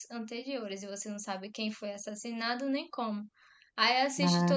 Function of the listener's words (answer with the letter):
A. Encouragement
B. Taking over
A